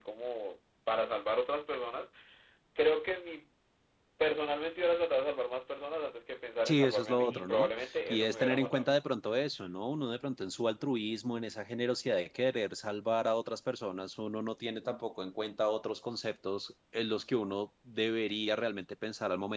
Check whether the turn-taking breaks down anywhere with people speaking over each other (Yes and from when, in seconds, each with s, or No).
Yes, from 6.6 s